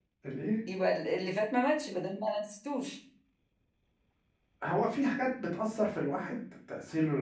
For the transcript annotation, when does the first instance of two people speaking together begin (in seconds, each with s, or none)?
none